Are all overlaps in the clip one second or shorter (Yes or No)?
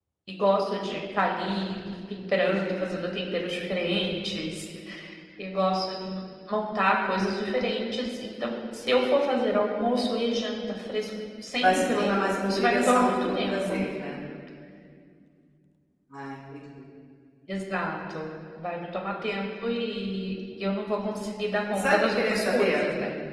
No